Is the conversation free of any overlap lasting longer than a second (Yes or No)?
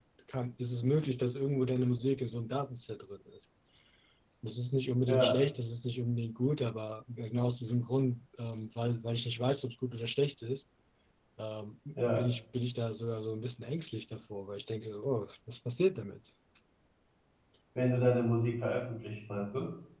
Yes